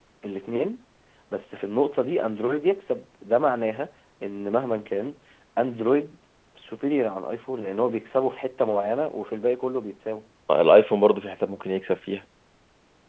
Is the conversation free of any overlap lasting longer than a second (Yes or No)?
Yes